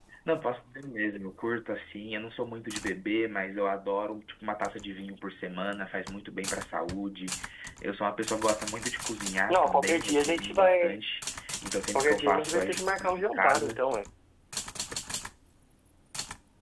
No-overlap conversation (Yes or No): No